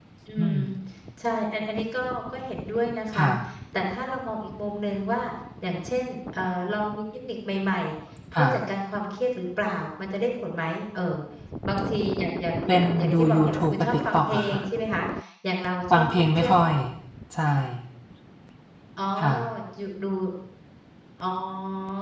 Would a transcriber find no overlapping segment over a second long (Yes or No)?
No